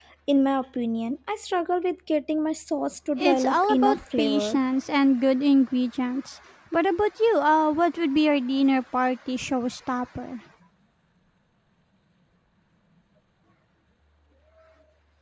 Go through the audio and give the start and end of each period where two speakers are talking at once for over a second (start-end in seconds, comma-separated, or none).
3.2-4.6